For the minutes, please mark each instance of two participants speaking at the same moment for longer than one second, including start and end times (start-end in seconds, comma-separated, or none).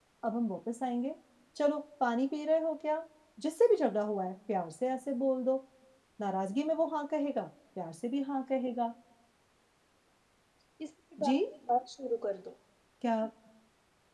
none